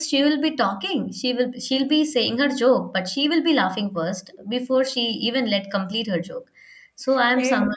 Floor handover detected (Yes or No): No